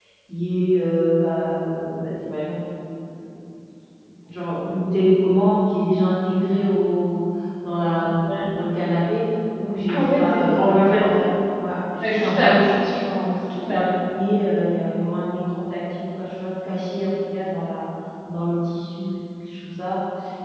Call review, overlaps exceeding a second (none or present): present